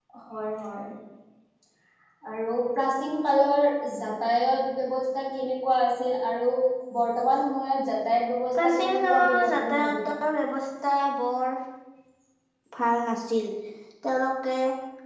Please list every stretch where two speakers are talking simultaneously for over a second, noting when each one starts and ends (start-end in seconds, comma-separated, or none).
8.6-10.0